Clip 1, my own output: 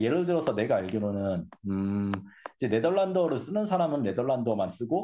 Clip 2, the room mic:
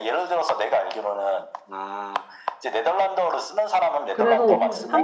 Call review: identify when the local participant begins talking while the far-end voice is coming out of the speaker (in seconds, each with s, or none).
4.1 s